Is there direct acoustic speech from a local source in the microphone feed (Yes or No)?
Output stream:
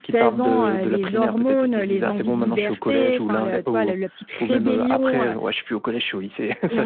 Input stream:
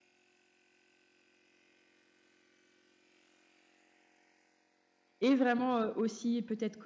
Yes